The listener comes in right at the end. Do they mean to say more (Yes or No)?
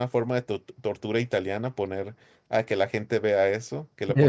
No